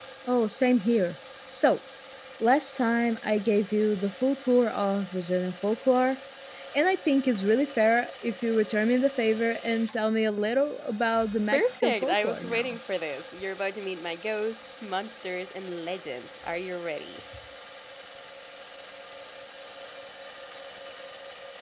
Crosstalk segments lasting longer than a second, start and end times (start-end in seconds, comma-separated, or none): 11.5-12.8